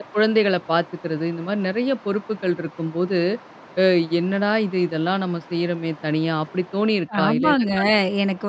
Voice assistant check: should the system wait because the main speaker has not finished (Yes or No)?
No